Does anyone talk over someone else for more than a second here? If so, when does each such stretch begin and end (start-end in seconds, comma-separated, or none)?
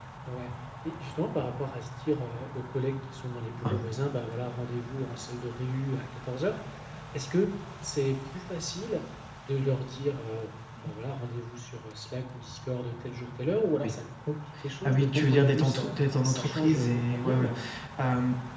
14.8-17.5